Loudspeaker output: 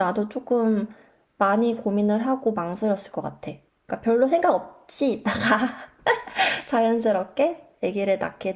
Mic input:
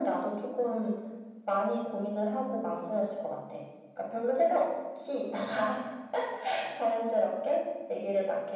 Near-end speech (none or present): none